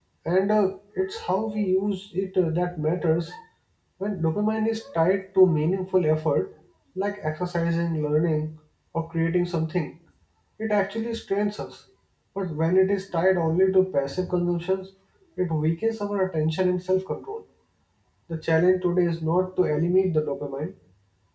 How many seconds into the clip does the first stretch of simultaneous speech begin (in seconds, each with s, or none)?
none